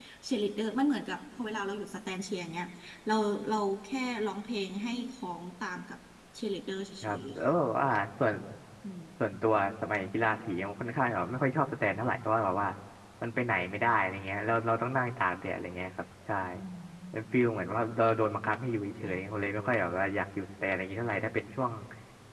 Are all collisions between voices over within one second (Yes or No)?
Yes